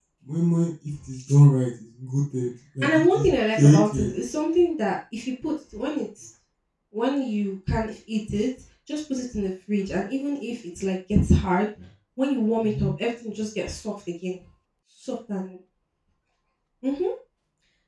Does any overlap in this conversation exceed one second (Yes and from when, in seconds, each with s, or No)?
Yes, from 2.8 s